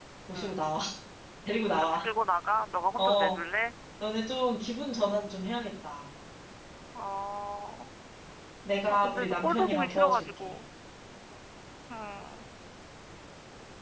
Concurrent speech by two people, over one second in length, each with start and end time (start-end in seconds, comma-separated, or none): 8.9-10.6